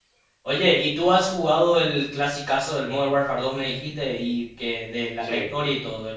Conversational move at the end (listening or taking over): listening